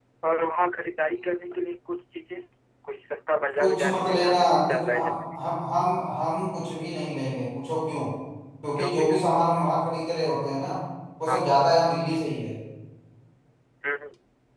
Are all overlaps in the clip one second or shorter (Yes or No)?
No